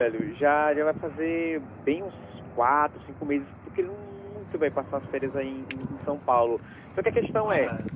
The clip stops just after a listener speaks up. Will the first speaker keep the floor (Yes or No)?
Yes